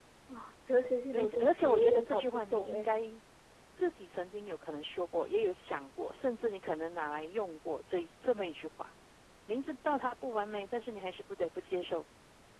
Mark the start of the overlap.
1.1 s

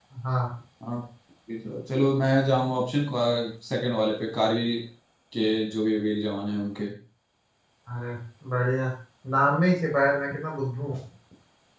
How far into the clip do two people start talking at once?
none

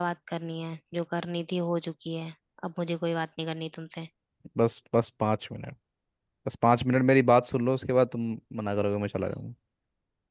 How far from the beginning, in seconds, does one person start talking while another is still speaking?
none

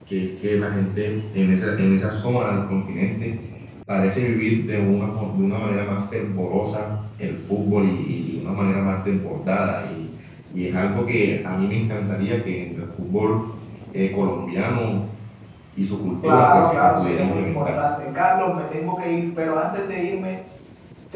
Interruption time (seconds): 16.2 s

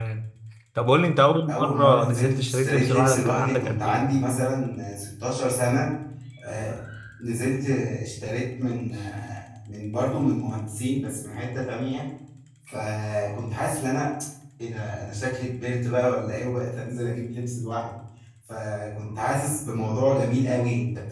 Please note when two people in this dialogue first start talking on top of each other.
1.5 s

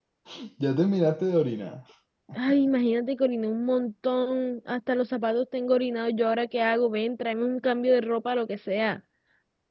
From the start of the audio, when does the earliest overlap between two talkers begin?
none

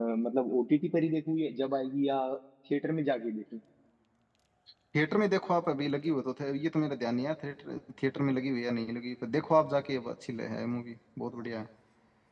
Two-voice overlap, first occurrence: none

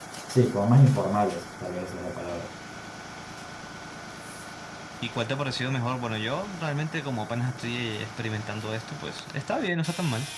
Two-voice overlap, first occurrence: none

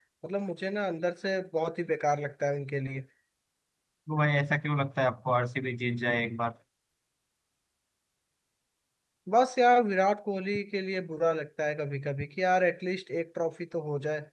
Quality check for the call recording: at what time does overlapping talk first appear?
none

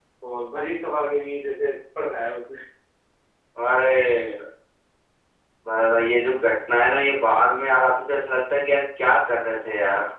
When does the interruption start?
none

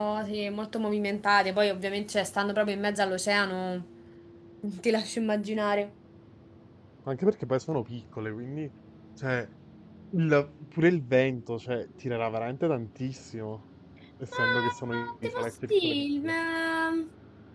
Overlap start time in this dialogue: 14.4 s

